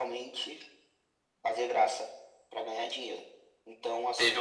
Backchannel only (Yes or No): No